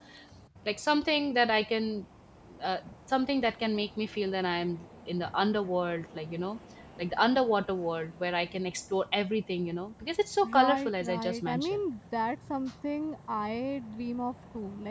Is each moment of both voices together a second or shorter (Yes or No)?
No